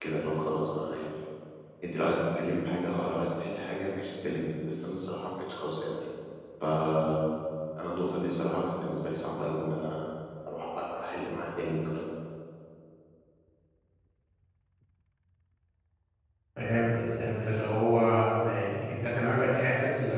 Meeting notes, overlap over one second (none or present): none